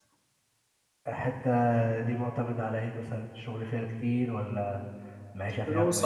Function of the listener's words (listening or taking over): taking over